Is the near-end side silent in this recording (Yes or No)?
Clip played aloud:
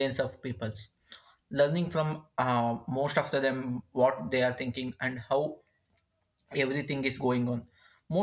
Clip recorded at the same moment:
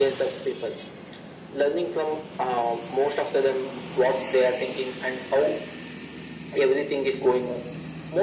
Yes